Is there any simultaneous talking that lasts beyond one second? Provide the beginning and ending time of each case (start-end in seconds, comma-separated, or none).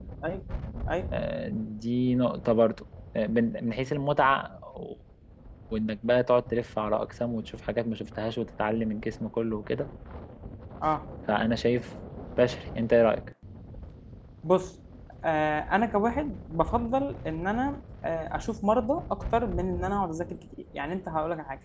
none